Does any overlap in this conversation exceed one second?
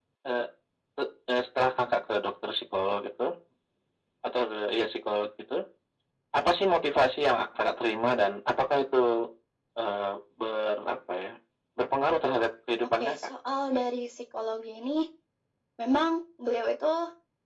No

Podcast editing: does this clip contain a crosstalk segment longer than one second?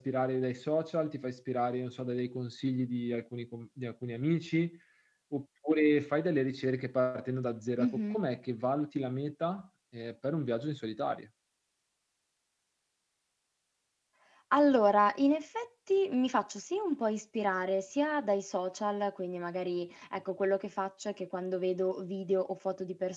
No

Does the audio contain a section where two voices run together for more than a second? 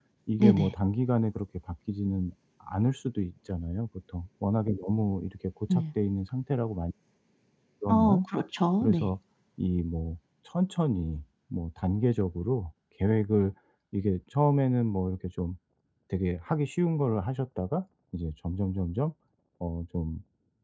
No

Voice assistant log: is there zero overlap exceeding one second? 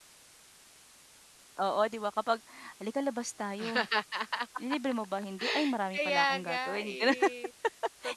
No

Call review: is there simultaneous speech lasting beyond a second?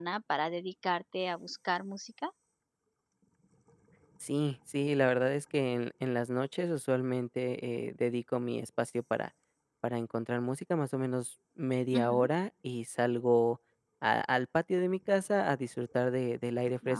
No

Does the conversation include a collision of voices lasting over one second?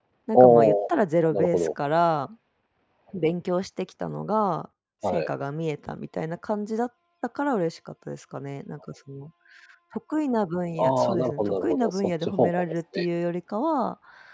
Yes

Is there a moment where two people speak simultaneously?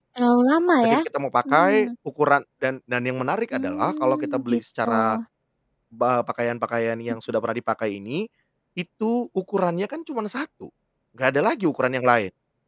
Yes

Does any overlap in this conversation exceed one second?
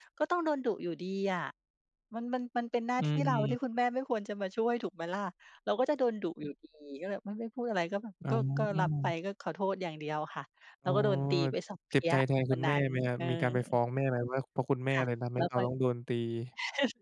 Yes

